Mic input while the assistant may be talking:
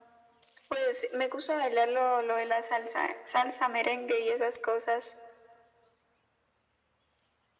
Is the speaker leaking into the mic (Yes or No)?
Yes